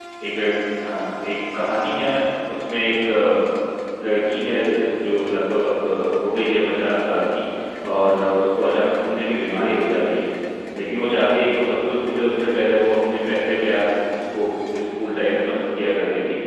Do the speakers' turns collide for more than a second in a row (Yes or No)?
No